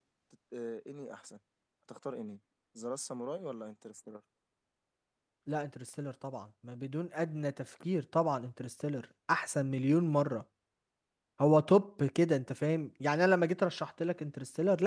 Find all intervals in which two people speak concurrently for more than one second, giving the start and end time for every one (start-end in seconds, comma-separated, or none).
none